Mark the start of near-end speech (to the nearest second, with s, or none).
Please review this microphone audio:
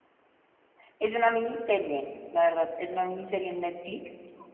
none